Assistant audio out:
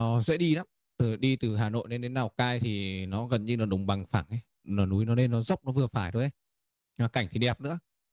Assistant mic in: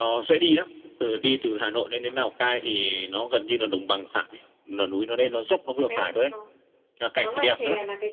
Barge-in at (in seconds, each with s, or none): 5.9 s